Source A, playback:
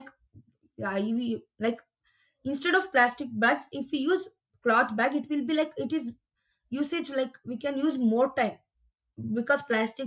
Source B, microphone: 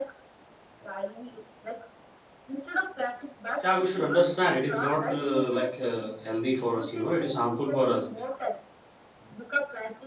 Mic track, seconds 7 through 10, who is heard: both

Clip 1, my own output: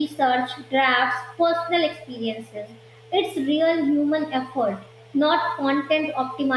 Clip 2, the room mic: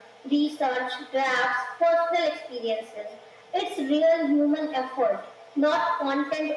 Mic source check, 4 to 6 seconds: echo only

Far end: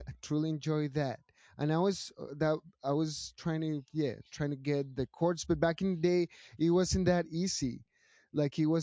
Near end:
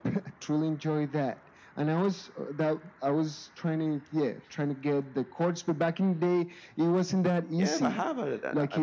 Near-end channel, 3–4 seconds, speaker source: echo only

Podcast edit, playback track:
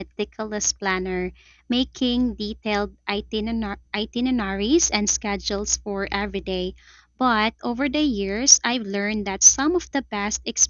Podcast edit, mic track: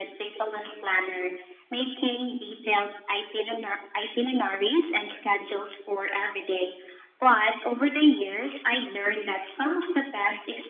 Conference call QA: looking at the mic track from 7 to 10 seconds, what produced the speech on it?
echo only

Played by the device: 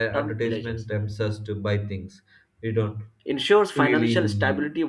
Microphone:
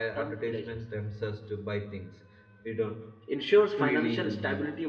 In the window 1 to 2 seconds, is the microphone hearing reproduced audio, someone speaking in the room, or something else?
echo only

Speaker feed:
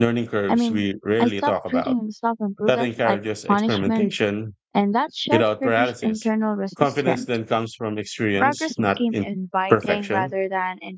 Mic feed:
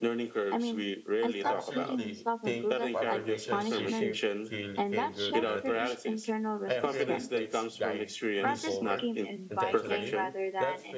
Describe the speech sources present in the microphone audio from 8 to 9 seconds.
both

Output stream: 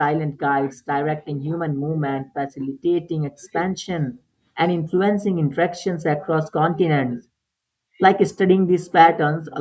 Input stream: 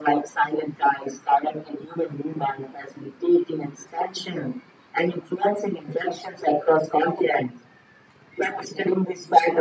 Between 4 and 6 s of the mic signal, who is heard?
echo only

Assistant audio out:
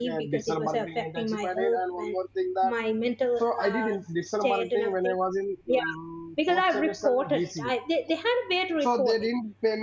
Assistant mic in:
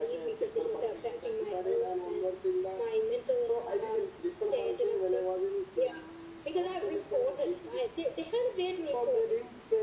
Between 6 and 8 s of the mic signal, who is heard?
echo only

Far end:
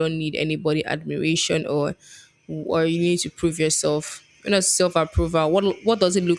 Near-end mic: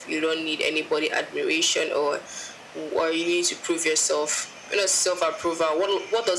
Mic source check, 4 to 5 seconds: echo only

